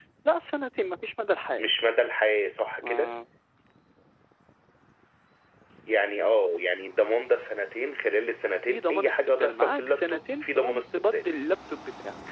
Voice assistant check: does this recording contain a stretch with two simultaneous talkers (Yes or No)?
Yes